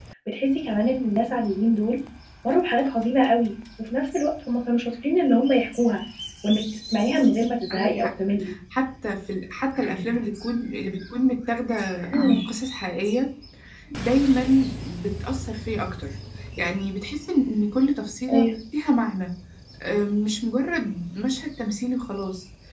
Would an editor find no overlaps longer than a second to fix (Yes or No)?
Yes